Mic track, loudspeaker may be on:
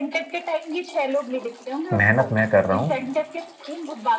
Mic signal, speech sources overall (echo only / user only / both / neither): both